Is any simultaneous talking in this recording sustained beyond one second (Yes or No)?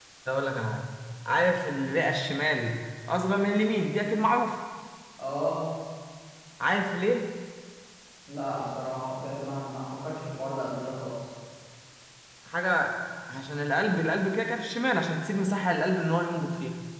No